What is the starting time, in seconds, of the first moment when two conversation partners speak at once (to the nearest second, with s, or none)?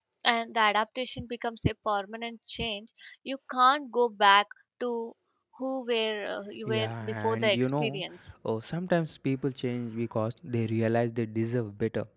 7 s